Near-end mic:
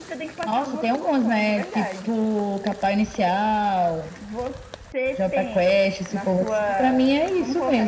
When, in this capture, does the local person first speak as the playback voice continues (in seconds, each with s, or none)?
none